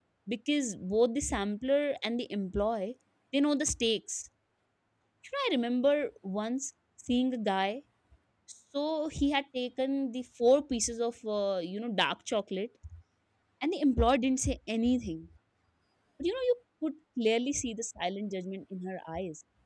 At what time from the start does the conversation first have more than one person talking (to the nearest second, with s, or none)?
none